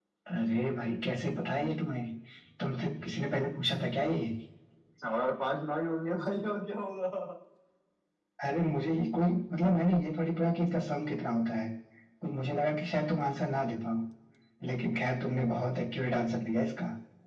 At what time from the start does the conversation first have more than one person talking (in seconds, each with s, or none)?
none